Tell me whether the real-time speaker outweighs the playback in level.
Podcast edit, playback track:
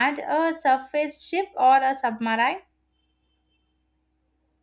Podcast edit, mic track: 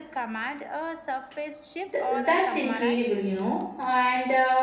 Yes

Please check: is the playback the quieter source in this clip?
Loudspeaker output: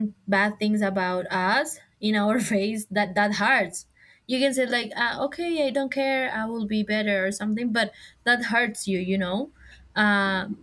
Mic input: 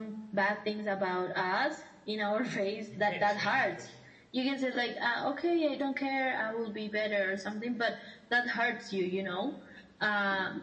No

